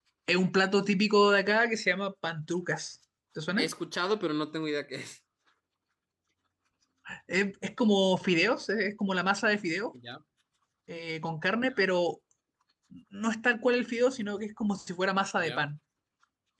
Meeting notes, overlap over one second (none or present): none